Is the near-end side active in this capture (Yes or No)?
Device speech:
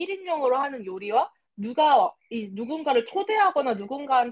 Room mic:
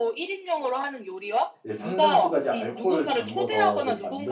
Yes